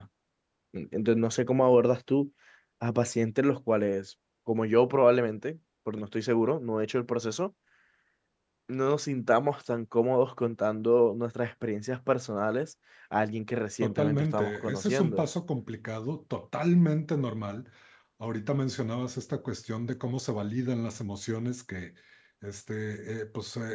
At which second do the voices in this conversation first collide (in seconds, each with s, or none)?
13.8 s